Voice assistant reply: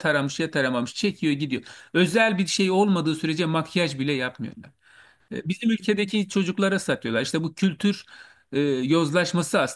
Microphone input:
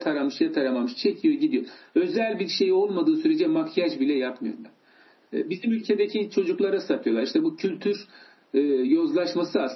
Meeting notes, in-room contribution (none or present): none